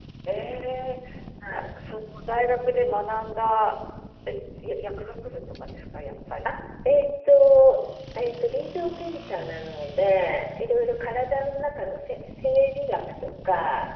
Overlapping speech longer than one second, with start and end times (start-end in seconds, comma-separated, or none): none